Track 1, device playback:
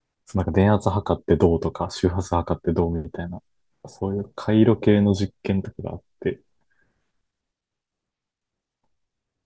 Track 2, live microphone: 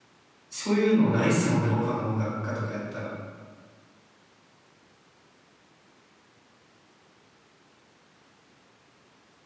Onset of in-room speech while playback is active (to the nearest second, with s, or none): 0 s